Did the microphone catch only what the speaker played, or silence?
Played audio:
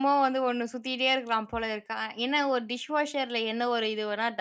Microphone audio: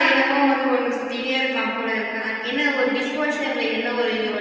Yes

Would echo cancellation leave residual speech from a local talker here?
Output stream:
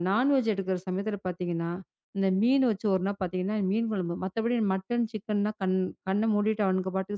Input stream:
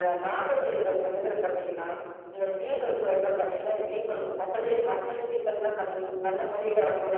No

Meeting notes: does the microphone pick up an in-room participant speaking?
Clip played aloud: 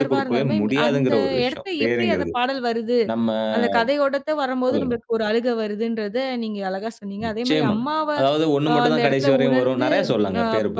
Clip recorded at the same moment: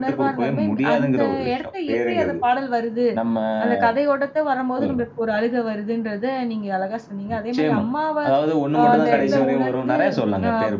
Yes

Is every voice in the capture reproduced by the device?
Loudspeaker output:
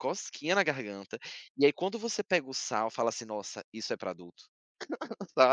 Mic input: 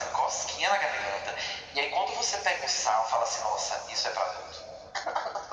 Yes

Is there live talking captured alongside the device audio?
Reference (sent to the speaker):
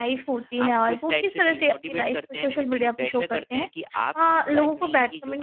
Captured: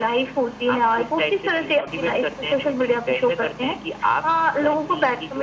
No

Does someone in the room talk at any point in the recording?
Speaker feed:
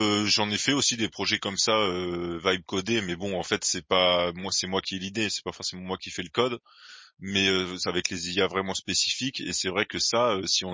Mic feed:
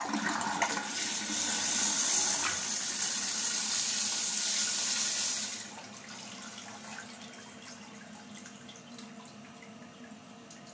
No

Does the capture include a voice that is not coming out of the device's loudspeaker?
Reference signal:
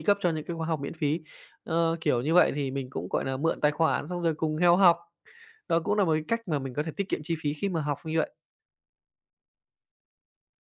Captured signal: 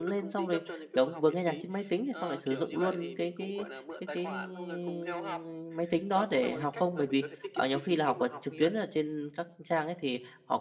Yes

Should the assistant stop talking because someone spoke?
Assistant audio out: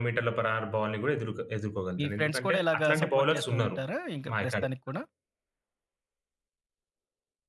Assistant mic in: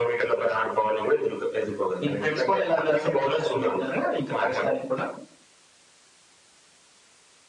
No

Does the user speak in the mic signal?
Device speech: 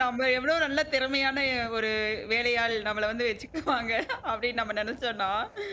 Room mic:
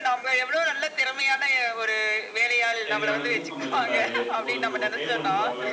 Yes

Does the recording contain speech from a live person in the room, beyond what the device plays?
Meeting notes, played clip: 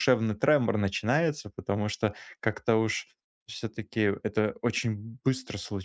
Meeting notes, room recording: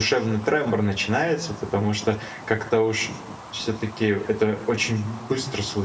No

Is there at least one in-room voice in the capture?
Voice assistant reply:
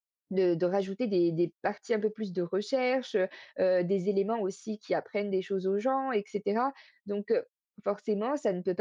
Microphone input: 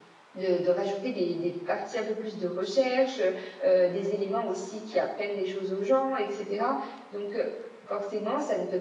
No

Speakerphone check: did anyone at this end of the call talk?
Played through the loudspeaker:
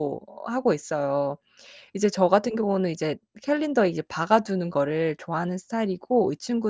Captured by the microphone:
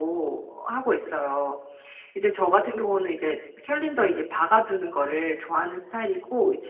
No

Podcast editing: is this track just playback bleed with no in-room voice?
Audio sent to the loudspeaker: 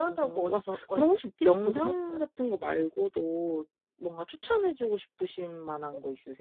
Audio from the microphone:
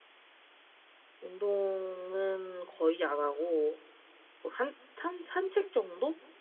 No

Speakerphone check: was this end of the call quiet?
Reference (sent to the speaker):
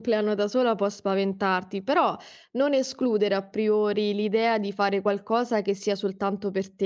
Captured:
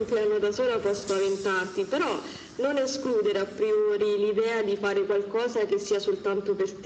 Yes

